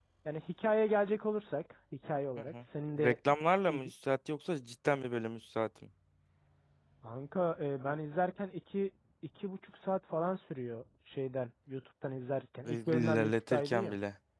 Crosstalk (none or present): present